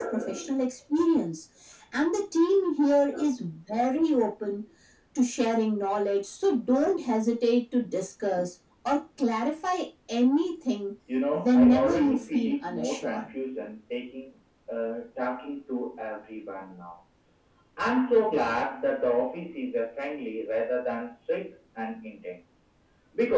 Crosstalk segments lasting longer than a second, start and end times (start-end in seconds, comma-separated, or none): 11.3-13.2